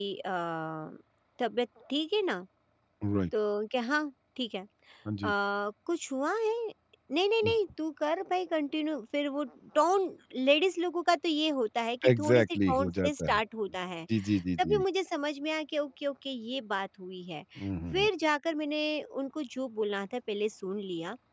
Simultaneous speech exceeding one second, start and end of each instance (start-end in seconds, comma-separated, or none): 12.1-13.4